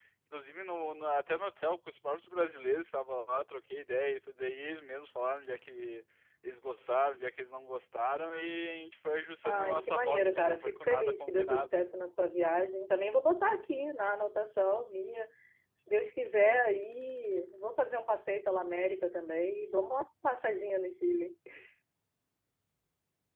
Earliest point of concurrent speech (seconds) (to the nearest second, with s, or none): 9 s